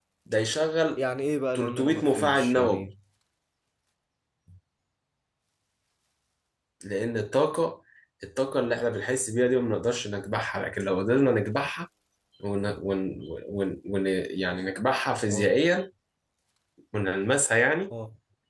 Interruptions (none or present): present